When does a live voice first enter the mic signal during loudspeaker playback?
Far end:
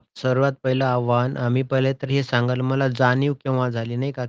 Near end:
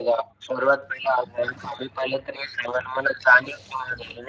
none

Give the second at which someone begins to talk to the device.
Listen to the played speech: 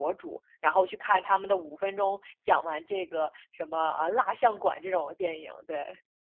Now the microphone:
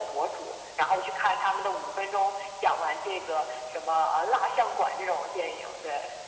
none

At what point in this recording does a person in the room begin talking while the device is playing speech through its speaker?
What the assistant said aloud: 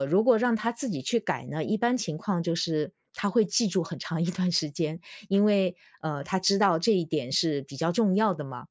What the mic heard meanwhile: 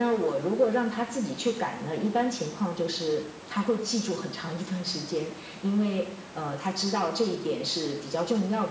none

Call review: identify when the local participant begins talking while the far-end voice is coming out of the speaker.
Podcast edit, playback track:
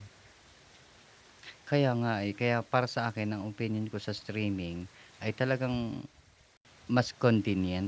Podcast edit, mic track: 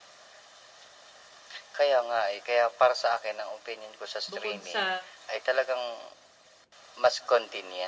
4.3 s

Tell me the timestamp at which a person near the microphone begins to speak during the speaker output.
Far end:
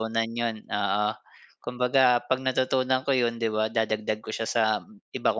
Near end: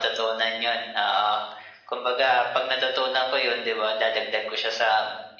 none

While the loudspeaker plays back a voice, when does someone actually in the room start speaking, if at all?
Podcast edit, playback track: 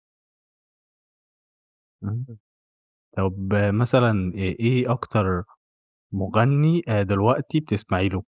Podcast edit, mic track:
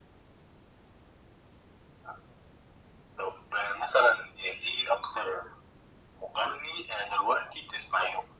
none

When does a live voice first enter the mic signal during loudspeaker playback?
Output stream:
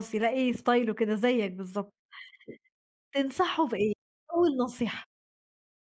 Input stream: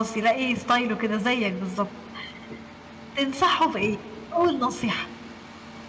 none

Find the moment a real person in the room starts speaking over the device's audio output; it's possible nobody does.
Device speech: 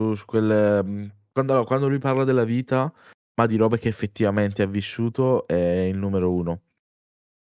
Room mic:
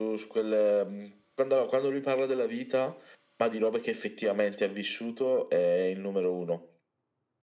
none

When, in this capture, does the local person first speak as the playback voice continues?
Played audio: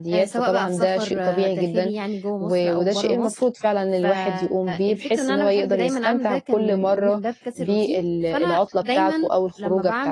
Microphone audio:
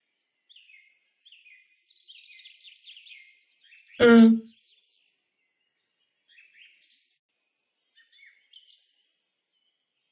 4.0 s

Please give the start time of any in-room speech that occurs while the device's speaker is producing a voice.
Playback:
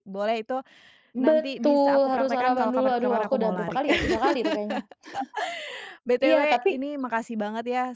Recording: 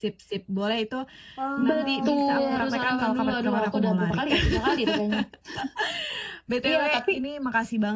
1.4 s

